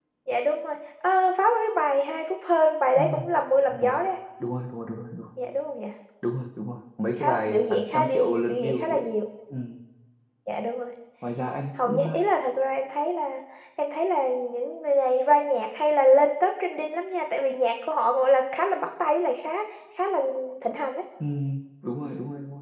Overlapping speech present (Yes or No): Yes